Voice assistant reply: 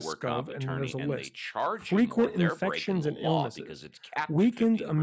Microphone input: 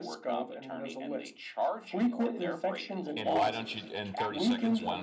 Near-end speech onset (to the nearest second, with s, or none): 3 s